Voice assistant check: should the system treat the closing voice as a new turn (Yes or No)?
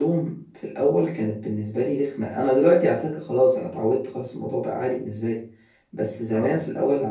No